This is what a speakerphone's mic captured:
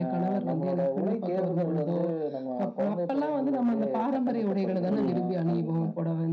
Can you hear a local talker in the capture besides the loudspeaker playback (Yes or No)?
Yes